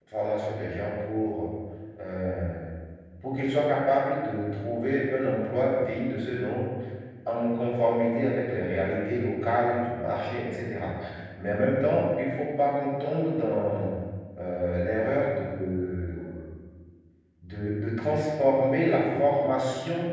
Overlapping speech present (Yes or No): No